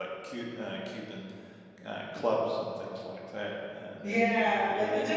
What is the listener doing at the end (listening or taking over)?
taking over